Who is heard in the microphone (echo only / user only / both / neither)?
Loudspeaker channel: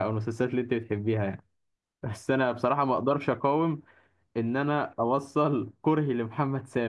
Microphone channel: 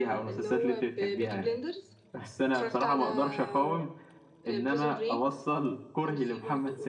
both